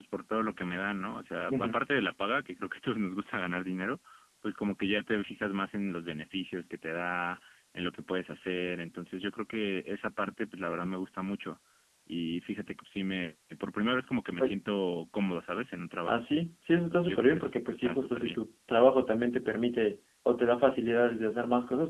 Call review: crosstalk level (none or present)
present